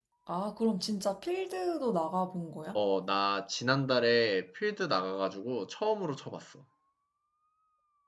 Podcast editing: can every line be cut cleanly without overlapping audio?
Yes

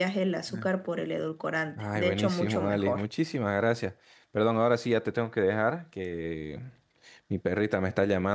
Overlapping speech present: Yes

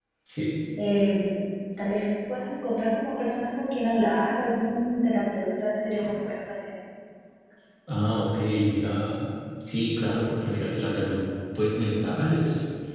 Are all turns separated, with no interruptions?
Yes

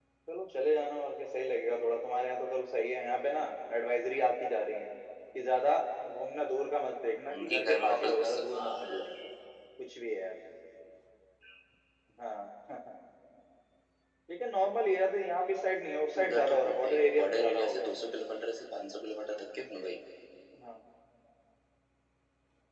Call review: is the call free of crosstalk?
No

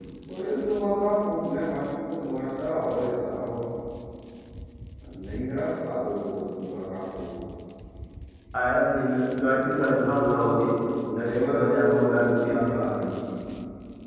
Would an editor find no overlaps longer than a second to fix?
No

